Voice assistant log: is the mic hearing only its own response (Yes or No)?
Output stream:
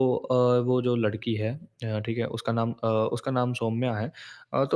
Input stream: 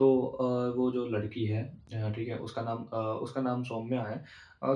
Yes